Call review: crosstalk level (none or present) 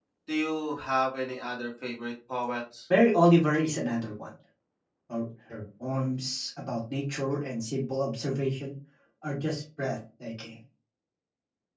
none